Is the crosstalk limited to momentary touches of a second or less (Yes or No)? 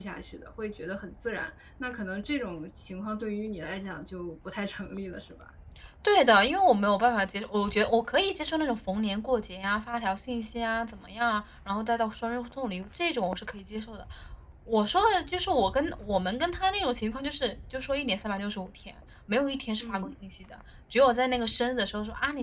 Yes